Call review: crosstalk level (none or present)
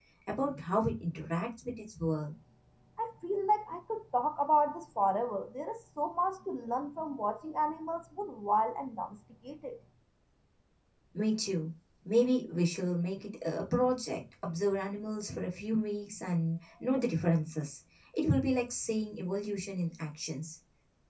none